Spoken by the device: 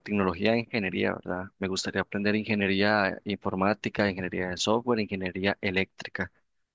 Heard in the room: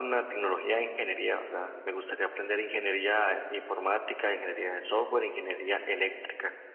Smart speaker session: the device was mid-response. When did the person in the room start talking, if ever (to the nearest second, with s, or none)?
none